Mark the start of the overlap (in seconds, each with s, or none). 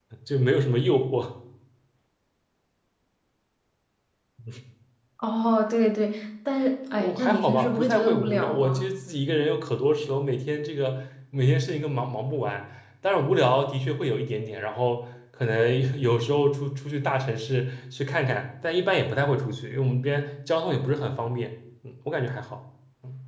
7.0 s